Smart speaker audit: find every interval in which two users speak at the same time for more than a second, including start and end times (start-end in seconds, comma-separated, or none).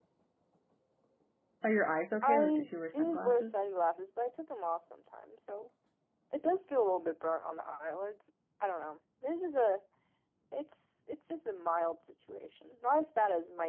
2.2-3.5